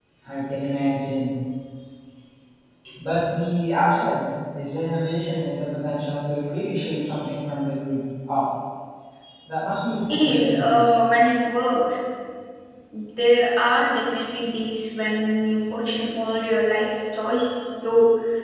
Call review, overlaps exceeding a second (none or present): none